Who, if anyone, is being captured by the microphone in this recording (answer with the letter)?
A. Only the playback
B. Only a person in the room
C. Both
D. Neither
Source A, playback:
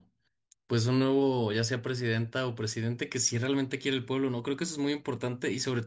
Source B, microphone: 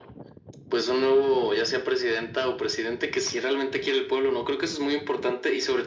A